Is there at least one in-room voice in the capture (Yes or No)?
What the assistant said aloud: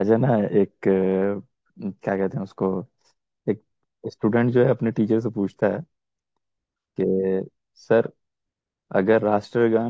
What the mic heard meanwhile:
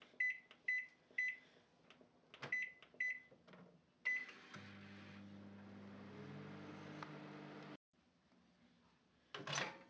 No